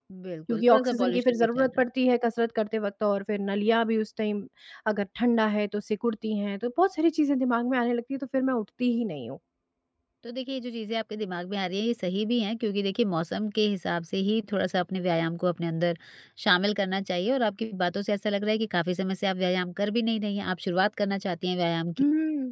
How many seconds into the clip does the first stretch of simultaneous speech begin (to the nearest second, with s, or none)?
1 s